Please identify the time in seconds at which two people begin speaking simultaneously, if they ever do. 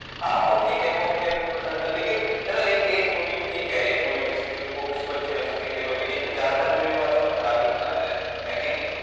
none

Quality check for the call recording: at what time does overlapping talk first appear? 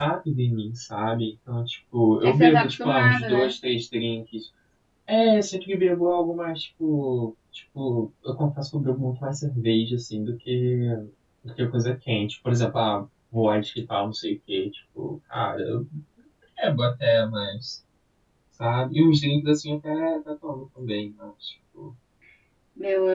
2.2 s

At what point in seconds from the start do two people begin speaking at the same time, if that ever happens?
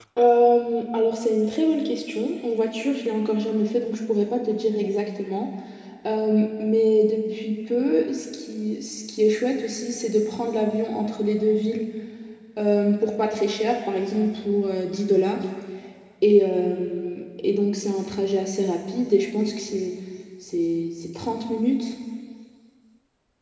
none

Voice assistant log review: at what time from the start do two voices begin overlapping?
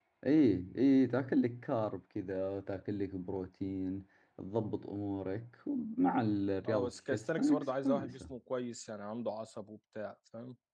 6.7 s

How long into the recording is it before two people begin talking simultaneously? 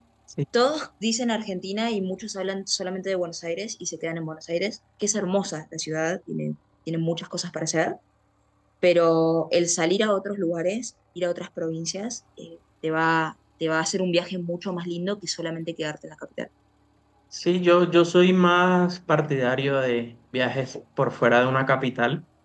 none

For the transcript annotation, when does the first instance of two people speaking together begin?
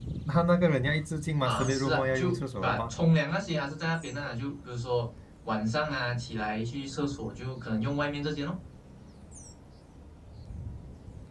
1.4 s

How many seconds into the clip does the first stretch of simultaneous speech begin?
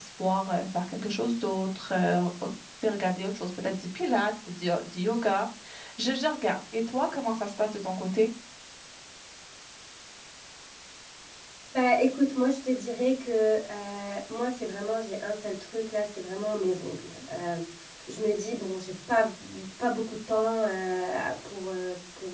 none

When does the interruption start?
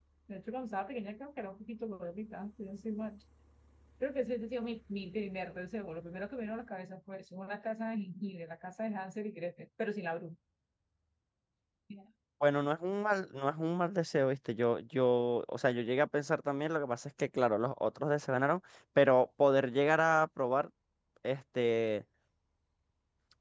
none

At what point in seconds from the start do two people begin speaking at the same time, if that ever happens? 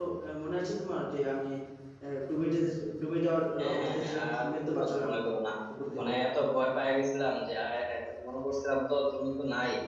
3.6 s

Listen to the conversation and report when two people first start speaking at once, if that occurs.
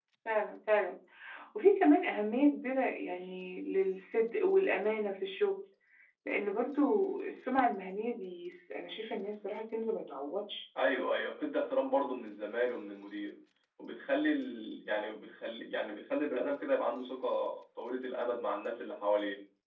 none

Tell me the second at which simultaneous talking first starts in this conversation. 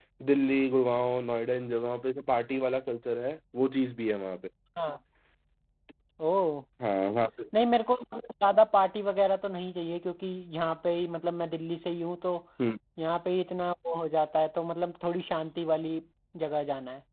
none

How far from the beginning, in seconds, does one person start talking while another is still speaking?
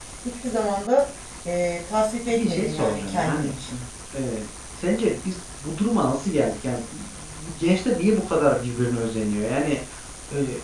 2.3 s

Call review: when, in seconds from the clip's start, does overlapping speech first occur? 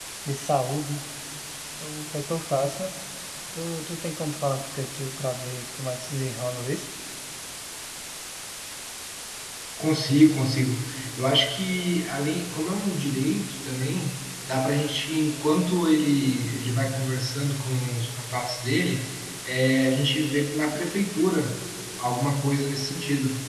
none

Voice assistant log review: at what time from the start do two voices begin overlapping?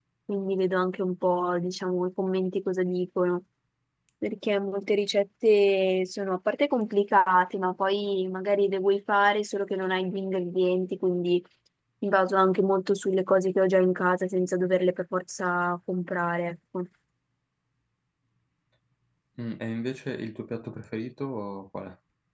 none

